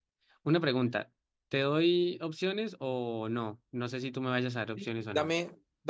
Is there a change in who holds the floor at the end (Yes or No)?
Yes